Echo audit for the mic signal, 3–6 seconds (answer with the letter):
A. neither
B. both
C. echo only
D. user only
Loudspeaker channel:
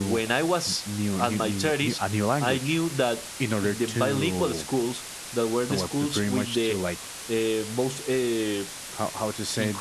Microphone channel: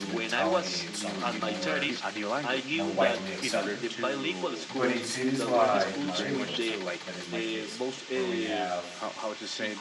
B